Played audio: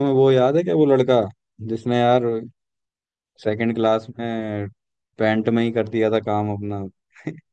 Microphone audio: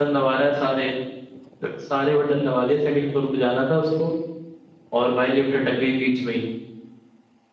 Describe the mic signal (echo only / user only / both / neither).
user only